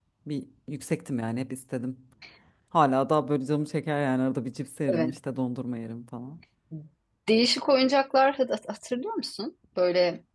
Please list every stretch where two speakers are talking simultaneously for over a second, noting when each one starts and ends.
none

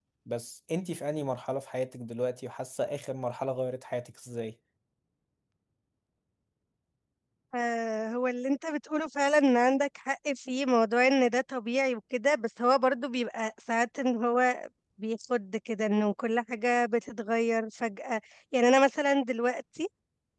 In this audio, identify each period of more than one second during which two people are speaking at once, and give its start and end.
none

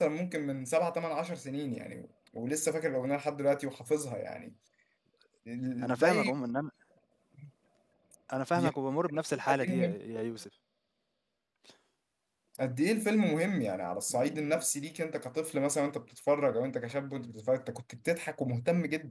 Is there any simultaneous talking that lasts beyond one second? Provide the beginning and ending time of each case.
none

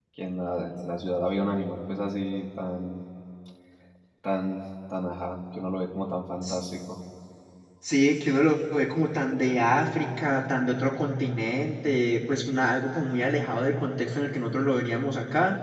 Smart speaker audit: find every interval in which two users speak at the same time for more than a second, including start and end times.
none

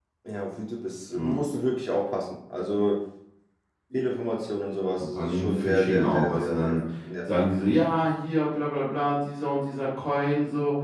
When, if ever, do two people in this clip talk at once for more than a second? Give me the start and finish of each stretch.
5.0-6.8

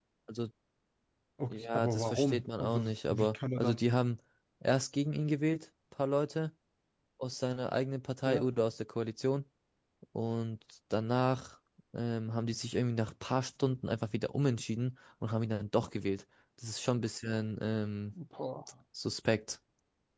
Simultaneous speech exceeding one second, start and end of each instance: 1.5-3.8

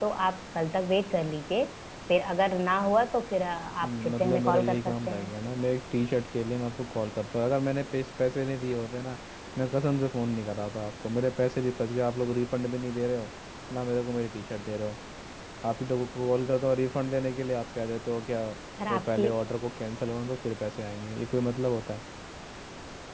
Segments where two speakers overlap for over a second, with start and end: 3.8-5.3

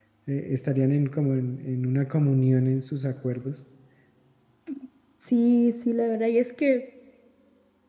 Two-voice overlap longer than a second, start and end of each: none

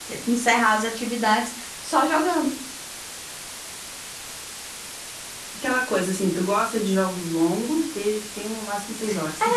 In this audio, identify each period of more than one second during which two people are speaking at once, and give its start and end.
none

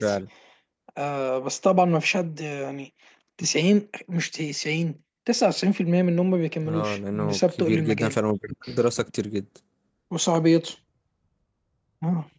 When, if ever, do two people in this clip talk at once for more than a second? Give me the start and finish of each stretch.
6.7-8.1

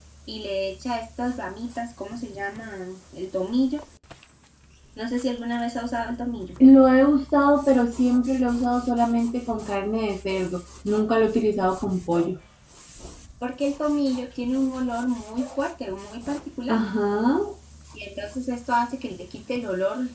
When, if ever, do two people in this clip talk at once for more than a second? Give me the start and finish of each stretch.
none

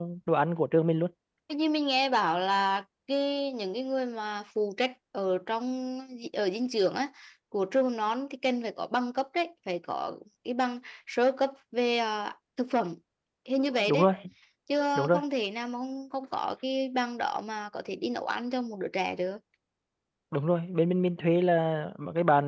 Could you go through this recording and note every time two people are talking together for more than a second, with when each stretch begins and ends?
none

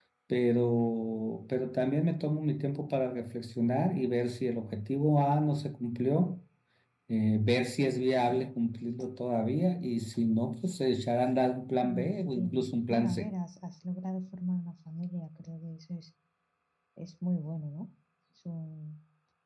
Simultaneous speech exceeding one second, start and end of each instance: 11.8-13.3

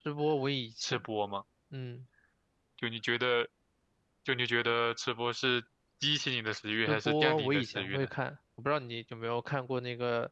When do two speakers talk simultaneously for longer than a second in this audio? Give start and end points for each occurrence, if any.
6.9-8.1

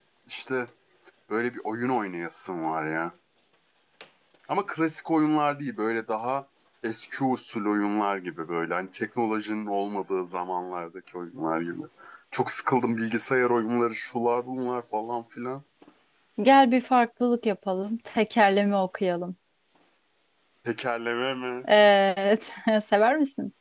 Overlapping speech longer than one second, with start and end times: none

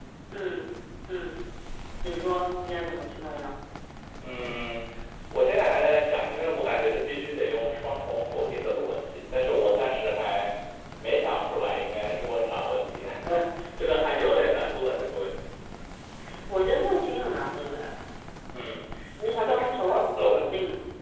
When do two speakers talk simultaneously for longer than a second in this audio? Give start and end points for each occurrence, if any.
19.2-20.5

